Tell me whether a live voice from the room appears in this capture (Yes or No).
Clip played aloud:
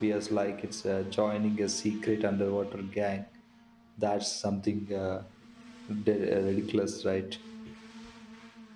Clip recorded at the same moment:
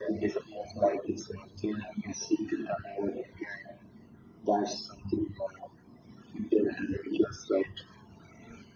No